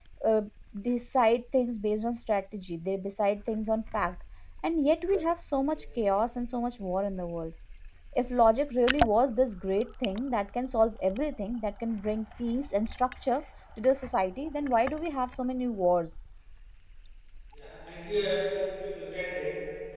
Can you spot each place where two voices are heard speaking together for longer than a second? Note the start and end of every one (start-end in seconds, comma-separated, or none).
none